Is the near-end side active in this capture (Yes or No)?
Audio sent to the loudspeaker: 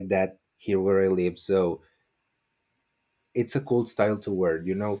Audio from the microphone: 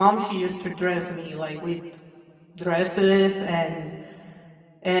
Yes